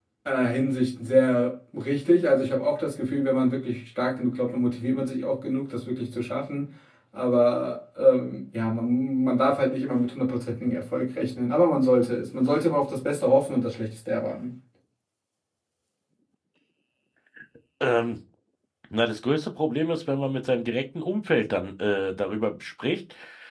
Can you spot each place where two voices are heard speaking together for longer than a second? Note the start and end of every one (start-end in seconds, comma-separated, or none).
none